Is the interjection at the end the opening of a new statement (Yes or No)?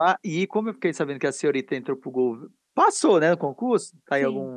No